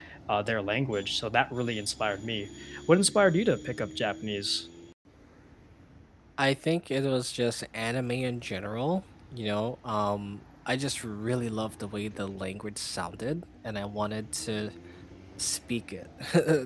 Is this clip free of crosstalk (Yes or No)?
Yes